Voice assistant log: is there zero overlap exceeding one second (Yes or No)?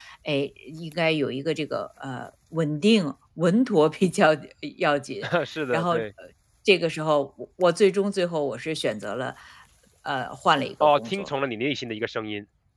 Yes